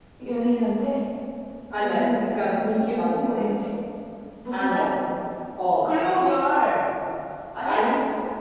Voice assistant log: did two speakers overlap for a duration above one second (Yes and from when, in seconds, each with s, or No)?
Yes, from 1.8 s